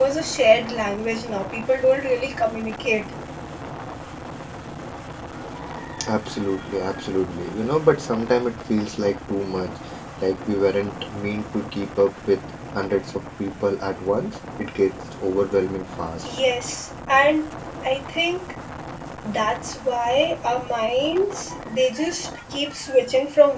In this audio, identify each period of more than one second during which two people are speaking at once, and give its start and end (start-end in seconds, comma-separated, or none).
none